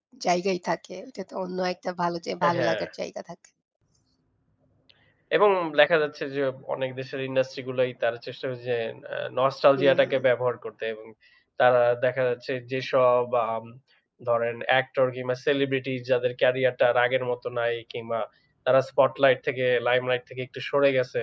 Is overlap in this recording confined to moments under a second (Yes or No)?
Yes